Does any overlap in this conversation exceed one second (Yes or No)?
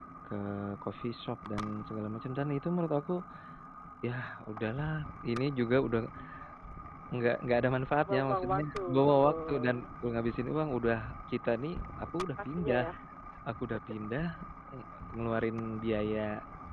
Yes